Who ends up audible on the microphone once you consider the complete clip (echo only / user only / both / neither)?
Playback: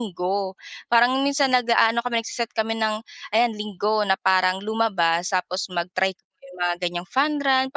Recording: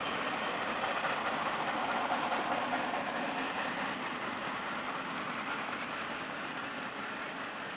neither